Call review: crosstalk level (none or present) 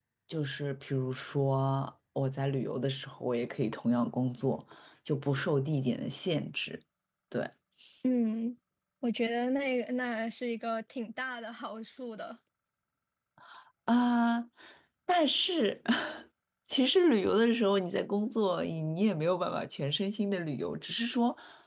none